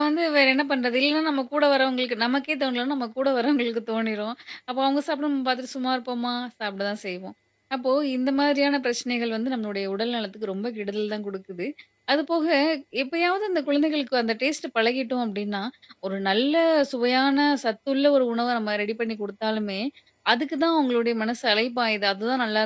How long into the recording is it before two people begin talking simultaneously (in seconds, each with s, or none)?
none